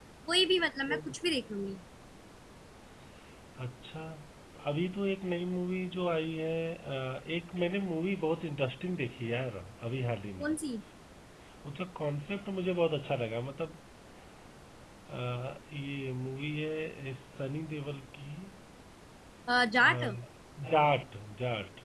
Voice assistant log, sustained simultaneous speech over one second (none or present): none